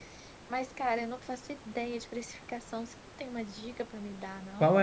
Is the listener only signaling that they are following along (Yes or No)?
No